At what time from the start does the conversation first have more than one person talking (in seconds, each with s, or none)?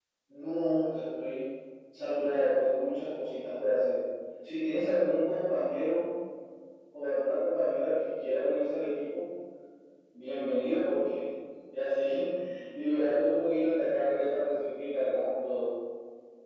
none